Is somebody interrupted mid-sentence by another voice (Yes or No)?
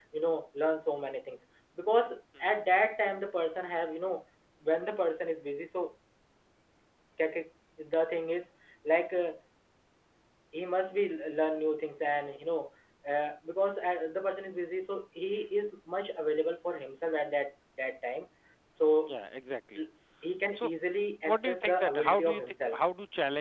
Yes